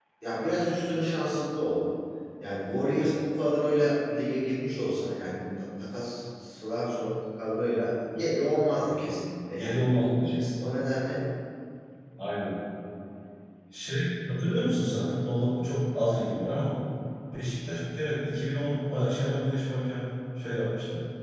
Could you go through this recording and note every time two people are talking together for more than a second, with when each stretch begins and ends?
none

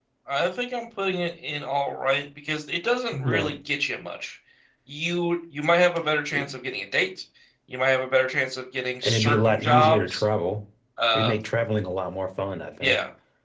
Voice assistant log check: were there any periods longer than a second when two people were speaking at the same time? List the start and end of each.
9.0-10.2

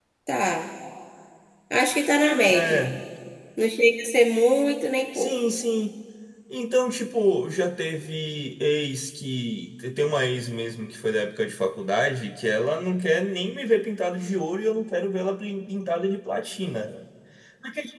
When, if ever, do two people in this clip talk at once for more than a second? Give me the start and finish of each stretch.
none

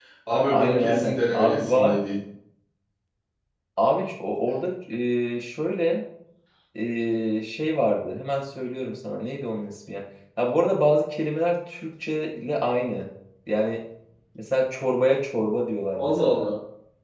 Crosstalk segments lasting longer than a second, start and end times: 0.5-2.0

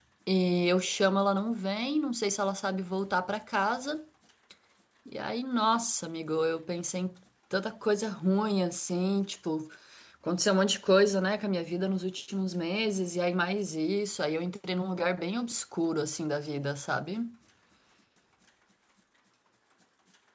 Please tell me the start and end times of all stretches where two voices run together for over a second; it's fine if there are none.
none

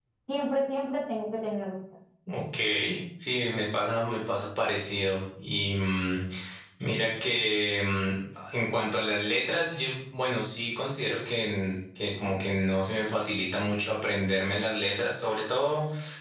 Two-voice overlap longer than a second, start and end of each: none

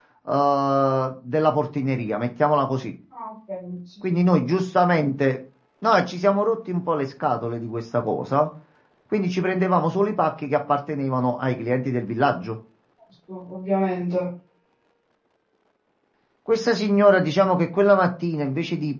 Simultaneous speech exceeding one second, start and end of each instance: none

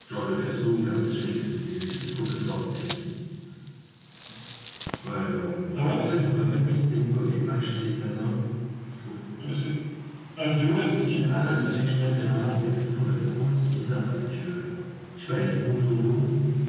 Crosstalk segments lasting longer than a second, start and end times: 11.2-12.6

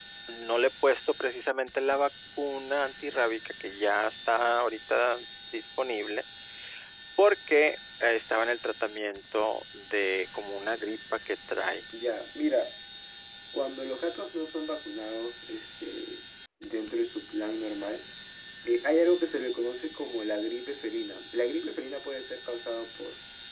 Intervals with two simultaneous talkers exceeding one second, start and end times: none

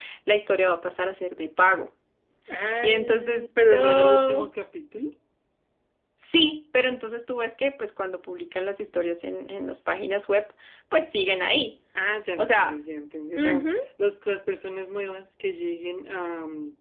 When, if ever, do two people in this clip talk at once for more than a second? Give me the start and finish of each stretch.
2.8-4.5

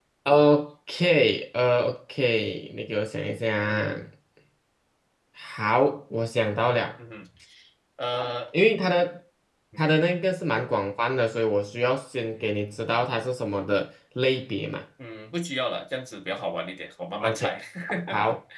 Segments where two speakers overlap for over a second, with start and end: none

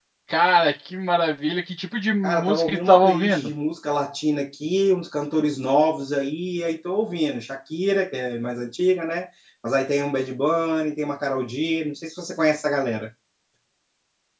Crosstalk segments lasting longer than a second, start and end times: 2.2-3.5

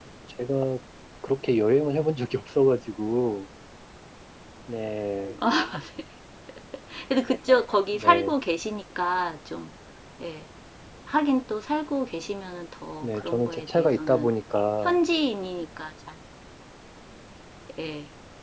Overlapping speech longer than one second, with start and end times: 13.0-14.3

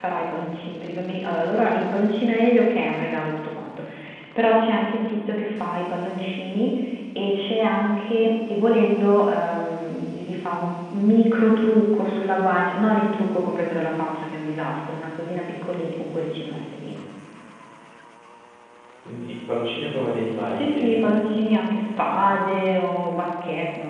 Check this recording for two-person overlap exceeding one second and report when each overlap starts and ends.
none

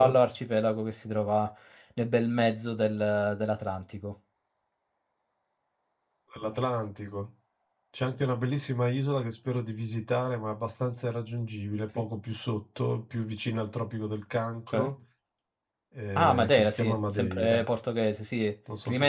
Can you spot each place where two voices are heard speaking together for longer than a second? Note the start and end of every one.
16.2-17.6

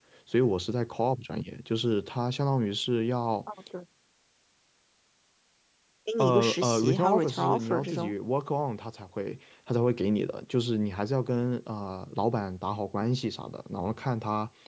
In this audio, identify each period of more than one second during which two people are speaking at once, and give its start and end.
6.2-8.1

